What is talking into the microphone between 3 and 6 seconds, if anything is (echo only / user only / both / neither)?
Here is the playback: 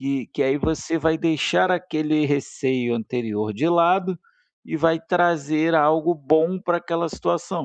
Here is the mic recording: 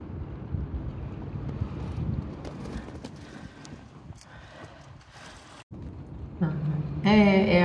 neither